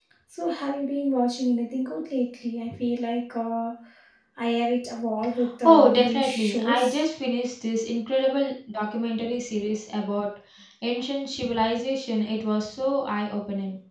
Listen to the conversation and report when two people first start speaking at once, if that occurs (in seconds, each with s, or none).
5.6 s